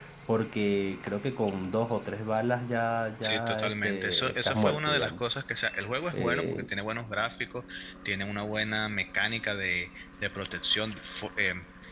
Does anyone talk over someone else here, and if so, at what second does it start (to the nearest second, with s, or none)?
3 s